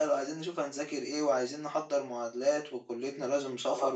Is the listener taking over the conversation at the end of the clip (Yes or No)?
No